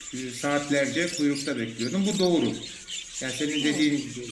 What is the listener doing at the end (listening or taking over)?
listening